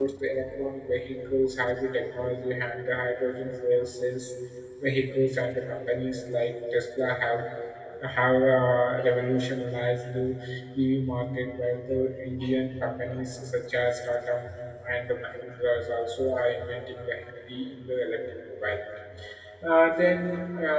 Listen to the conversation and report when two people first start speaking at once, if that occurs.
none

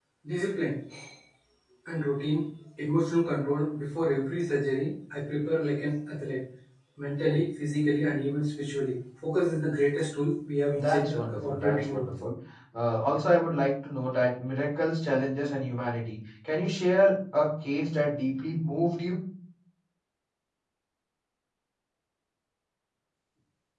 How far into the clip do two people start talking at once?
10.7 s

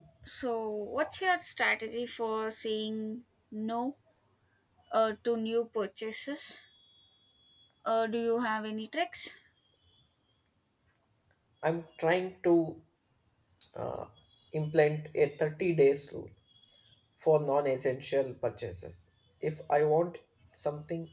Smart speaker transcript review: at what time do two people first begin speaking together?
none

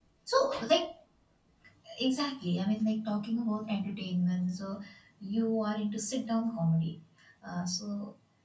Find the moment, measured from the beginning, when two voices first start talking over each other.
none

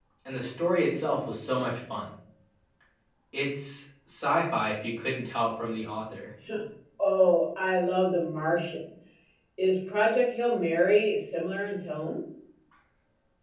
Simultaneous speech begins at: none

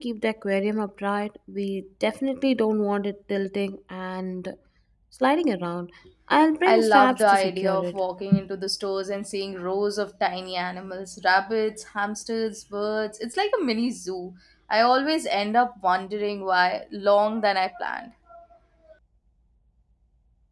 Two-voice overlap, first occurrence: 6.6 s

